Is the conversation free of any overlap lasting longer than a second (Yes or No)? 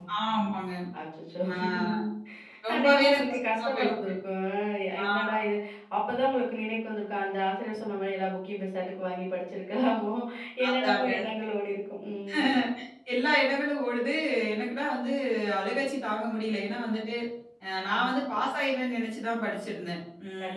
No